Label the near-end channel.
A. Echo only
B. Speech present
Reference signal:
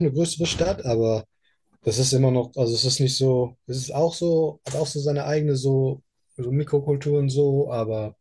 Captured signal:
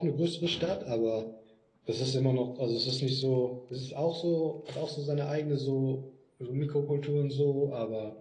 A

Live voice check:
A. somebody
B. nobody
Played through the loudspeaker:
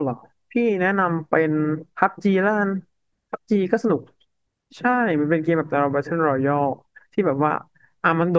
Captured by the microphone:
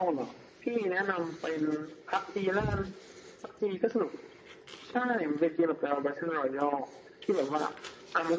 B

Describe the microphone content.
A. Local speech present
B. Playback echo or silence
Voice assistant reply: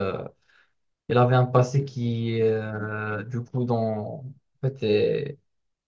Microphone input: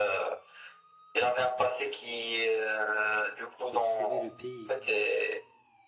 A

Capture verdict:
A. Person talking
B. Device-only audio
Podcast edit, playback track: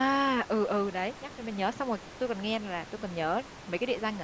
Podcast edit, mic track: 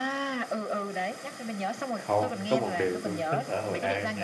A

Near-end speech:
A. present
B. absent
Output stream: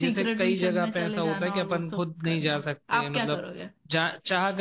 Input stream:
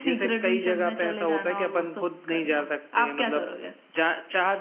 B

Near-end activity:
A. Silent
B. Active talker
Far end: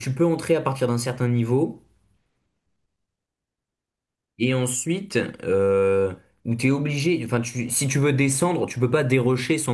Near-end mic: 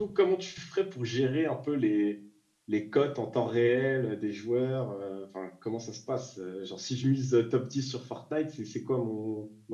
B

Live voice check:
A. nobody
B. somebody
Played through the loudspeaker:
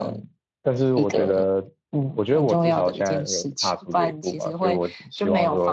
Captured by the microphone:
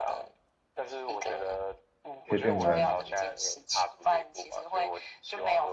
B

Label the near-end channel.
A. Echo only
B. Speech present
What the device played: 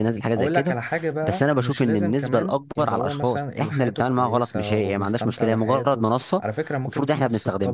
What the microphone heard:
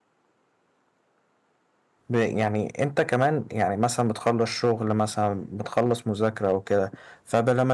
B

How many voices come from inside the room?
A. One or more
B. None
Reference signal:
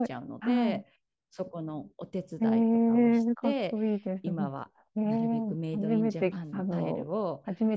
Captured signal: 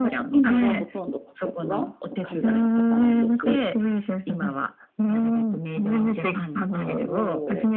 A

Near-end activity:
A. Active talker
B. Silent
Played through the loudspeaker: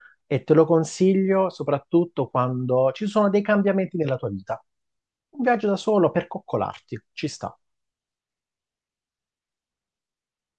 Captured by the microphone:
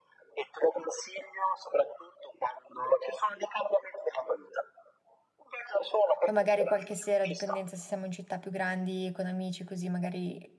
A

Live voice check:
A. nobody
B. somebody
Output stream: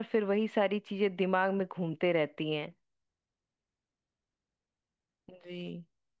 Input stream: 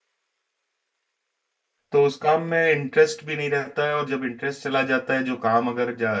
B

